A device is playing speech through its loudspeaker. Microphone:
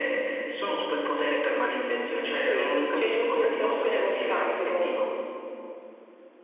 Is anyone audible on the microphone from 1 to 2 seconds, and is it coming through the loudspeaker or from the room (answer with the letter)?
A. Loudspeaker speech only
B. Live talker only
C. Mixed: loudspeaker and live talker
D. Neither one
A